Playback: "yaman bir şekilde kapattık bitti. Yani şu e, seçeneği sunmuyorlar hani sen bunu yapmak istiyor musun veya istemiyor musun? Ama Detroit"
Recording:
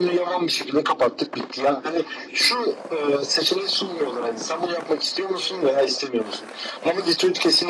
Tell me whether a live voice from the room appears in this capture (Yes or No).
No